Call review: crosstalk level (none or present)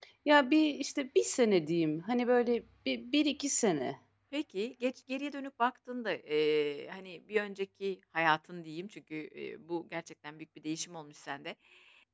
none